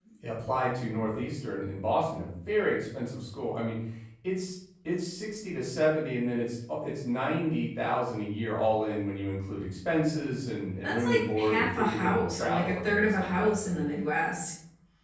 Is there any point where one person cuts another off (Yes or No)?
Yes